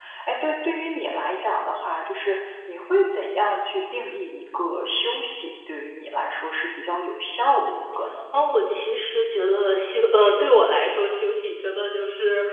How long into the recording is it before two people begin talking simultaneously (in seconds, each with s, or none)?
none